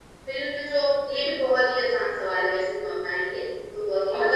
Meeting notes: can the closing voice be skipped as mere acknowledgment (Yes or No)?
Yes